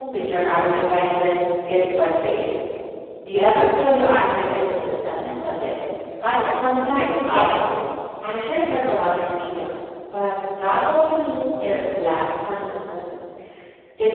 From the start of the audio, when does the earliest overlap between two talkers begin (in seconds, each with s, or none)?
6.5 s